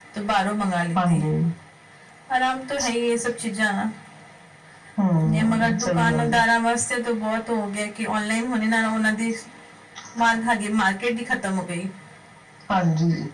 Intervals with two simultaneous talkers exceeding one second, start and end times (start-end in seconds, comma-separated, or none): 5.1-6.4